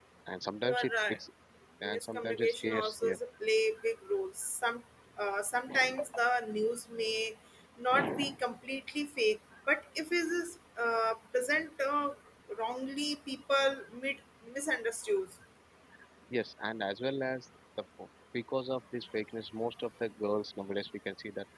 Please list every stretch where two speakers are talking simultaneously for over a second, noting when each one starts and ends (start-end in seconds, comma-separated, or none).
1.8-3.2